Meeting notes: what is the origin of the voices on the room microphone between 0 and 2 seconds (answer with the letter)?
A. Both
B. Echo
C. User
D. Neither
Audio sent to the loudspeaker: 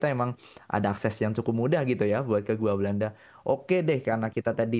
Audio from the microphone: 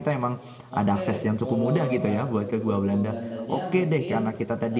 A